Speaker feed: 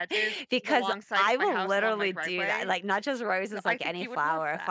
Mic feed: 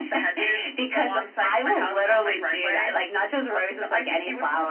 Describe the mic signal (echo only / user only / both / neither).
echo only